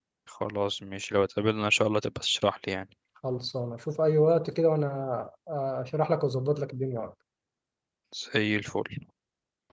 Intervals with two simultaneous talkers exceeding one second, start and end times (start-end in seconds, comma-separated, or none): none